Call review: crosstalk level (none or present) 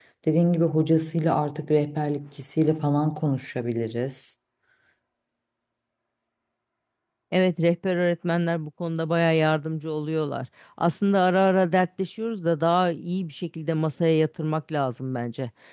none